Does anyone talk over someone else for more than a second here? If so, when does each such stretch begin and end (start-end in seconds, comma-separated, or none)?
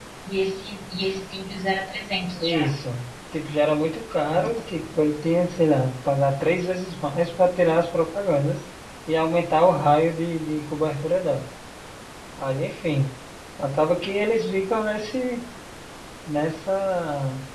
none